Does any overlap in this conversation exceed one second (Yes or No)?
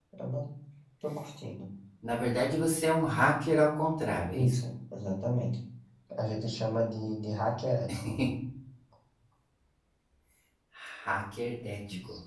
No